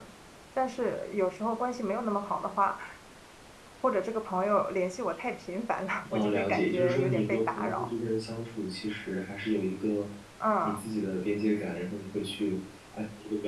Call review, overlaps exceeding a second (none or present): present